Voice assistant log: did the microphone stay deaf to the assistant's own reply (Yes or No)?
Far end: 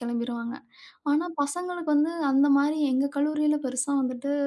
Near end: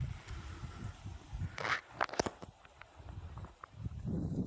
Yes